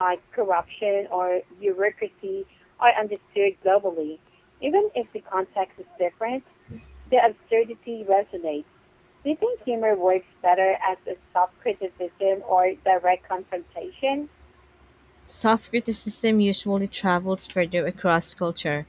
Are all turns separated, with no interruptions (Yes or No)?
Yes